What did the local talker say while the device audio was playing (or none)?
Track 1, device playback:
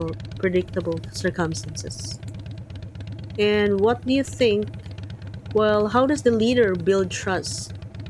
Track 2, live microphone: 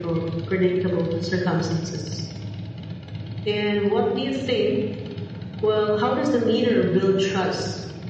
none